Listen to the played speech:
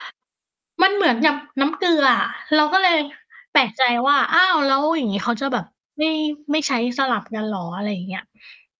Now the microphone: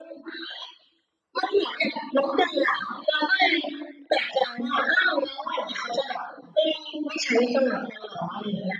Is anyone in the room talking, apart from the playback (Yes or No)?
No